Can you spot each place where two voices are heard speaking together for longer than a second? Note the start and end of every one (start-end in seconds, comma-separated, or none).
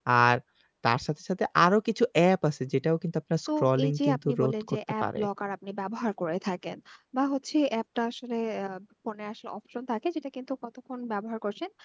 3.6-5.2